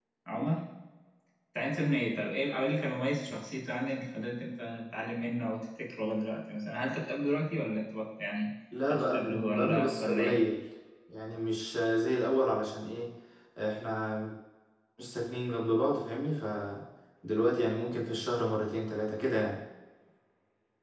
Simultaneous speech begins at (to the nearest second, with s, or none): 9 s